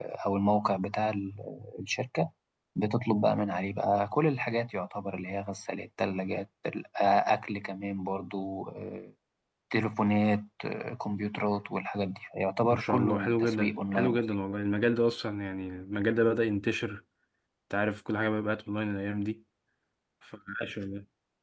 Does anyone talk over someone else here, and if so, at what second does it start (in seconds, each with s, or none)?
12.7 s